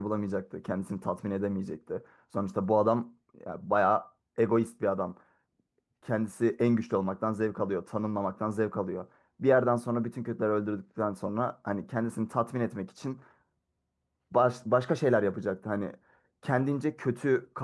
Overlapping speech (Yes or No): No